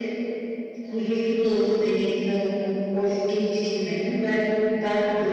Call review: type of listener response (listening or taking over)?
listening